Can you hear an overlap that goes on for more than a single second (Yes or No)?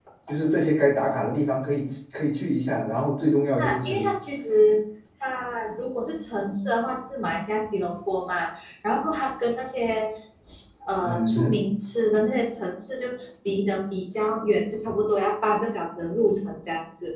No